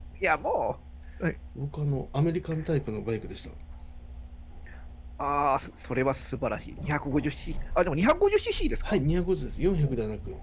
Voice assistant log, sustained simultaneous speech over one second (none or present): none